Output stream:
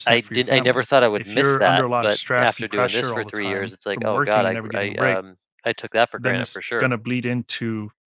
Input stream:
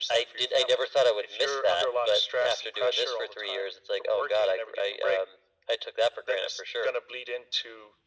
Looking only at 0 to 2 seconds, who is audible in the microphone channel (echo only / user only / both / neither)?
echo only